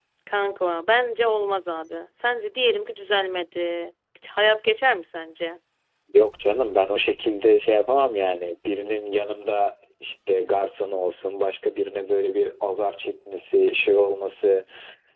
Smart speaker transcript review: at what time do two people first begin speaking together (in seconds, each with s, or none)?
none